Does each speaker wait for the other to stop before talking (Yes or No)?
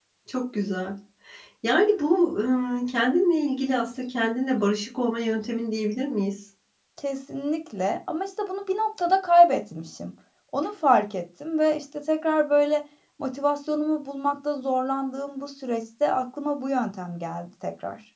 Yes